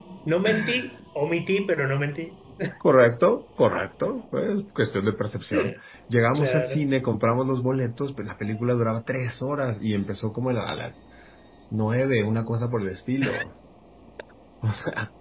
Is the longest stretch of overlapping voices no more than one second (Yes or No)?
Yes